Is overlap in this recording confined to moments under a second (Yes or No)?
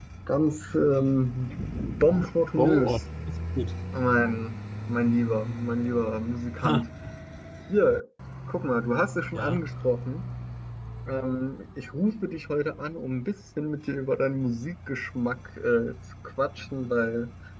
Yes